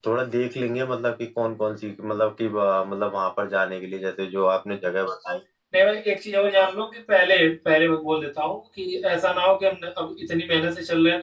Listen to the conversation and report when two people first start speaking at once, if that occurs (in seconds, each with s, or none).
none